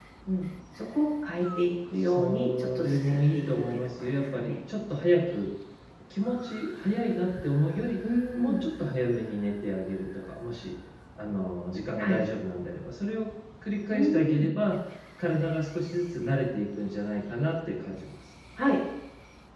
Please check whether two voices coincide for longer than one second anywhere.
Yes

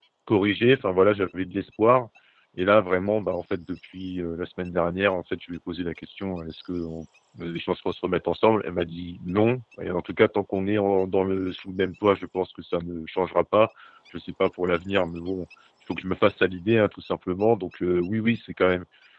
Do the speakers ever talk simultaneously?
No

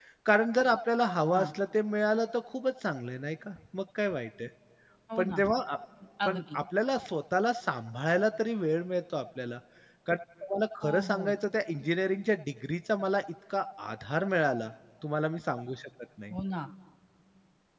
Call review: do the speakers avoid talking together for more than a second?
Yes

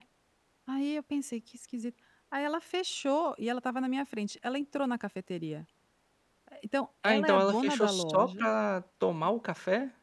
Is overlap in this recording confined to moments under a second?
No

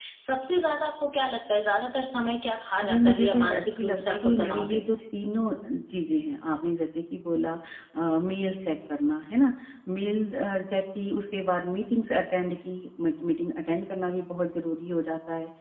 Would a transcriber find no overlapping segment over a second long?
No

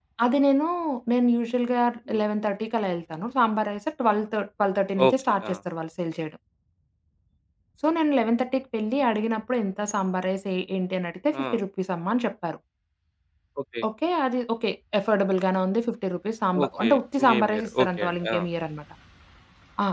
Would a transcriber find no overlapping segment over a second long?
No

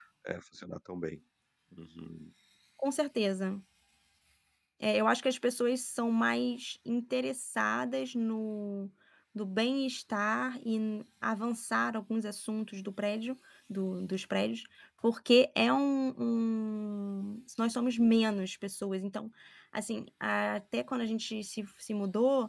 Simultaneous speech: No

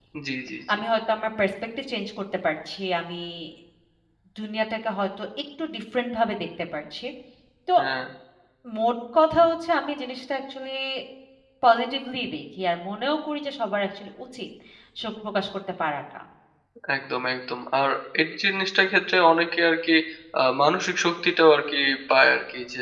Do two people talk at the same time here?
No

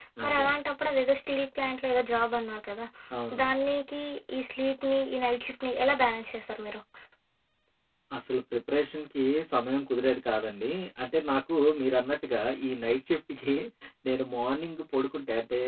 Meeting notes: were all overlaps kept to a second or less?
Yes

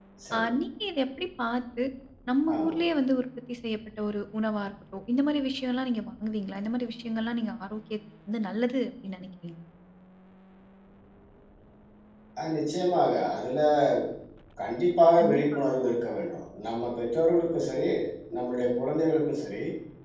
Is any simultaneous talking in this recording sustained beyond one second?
No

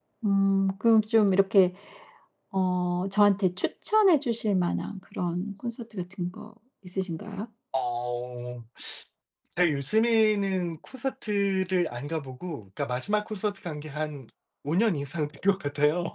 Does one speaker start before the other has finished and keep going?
No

